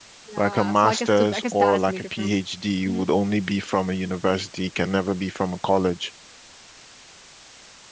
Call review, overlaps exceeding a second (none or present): present